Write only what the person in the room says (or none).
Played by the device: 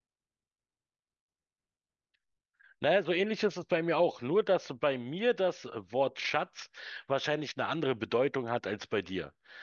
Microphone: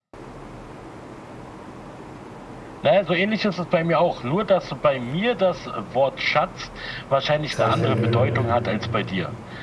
zahle ich dir einen Döner dafür,